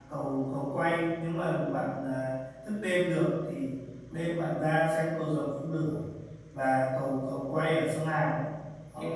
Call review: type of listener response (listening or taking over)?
listening